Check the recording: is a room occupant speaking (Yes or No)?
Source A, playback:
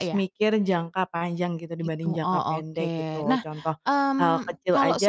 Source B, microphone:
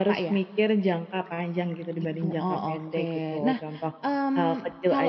Yes